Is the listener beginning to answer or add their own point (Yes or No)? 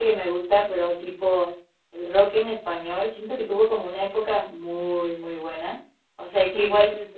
No